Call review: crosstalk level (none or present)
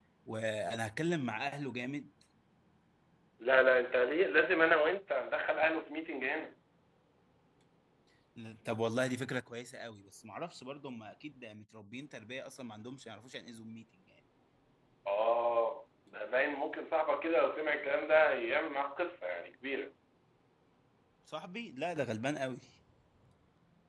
none